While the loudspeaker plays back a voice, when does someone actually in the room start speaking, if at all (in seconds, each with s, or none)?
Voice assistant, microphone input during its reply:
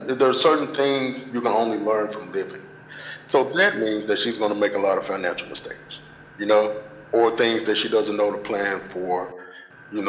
none